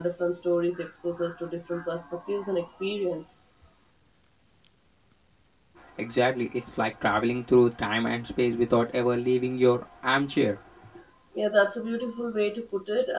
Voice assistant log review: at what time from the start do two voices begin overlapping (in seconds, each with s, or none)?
none